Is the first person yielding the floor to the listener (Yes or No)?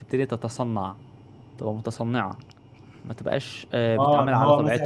Yes